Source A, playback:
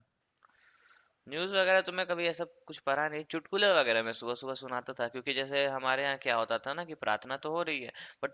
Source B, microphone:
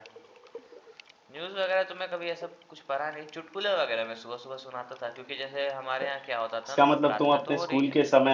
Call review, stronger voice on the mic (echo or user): user